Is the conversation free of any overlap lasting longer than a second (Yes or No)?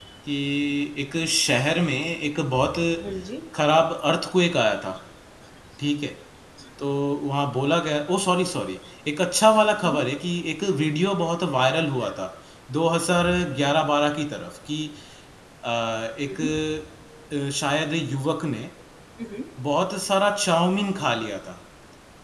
Yes